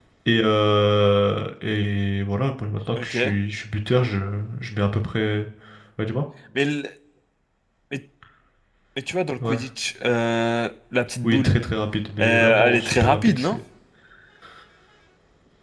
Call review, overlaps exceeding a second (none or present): present